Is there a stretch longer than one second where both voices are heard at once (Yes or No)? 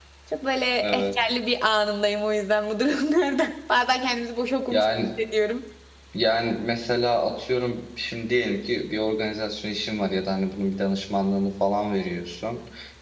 No